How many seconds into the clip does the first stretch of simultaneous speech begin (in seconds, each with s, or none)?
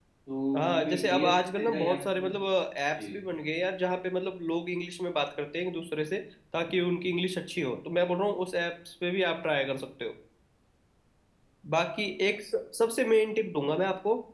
0.6 s